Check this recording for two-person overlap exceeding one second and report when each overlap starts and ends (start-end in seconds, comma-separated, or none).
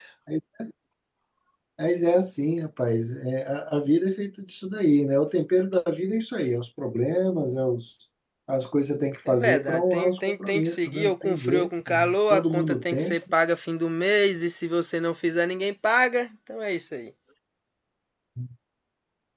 9.3-13.2